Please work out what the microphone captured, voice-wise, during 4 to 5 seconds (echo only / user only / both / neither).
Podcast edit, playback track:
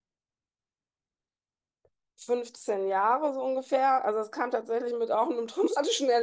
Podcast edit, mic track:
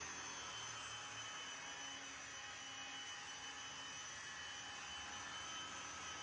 neither